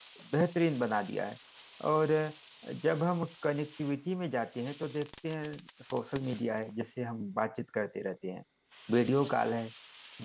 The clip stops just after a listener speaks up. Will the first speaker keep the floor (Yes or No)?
Yes